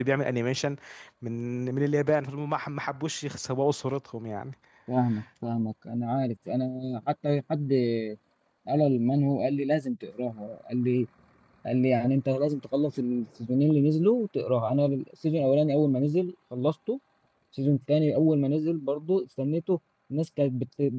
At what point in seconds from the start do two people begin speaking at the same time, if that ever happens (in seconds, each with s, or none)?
none